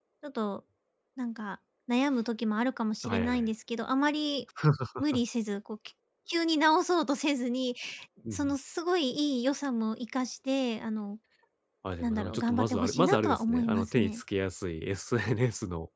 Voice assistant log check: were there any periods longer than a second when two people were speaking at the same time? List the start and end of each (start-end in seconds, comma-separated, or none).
12.0-14.2